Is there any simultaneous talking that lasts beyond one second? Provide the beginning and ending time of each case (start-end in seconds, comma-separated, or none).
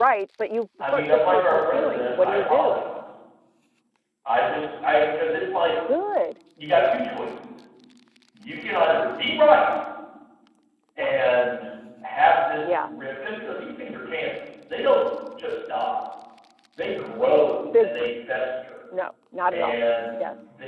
0.8-2.9